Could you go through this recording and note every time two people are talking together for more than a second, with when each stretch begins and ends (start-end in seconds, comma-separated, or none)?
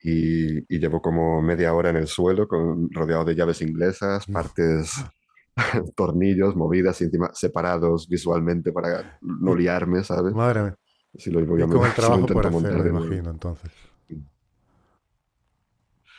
11.6-13.2